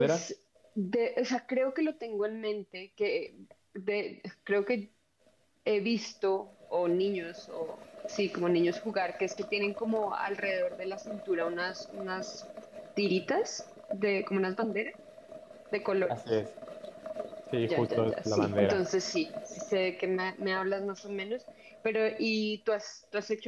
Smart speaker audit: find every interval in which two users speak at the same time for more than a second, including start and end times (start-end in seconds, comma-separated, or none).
17.6-18.9